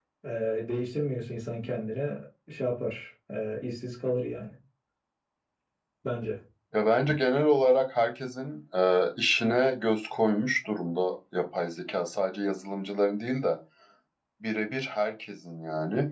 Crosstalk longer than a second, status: none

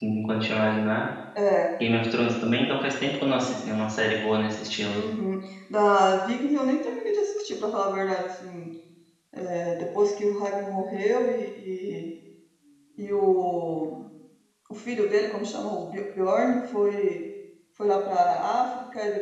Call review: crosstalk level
none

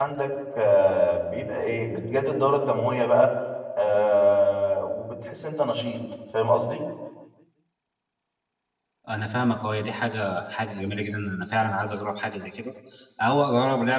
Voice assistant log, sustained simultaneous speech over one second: none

